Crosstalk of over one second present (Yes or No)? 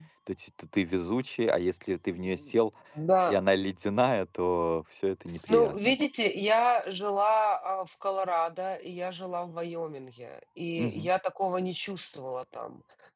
No